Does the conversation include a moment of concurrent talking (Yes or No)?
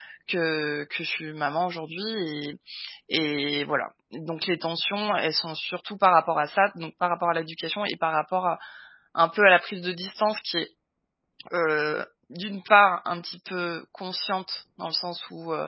No